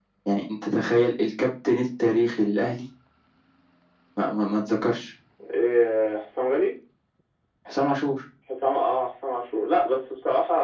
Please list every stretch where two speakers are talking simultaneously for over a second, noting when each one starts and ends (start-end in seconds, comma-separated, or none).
none